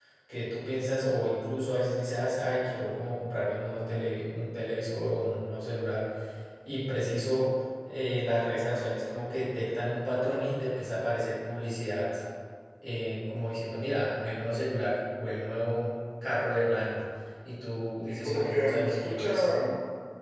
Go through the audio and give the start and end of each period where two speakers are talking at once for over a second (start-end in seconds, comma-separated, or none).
18.1-19.6